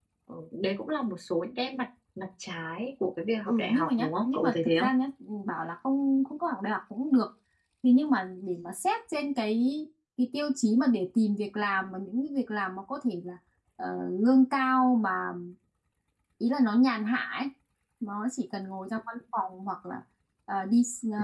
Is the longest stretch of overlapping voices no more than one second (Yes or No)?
No